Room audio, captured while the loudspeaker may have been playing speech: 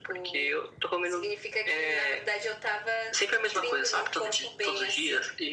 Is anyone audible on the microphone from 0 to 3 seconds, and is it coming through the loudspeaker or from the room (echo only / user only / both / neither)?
echo only